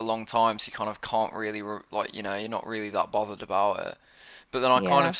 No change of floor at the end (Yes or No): Yes